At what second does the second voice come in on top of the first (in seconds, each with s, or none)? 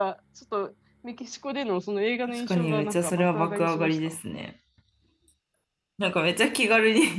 2.3 s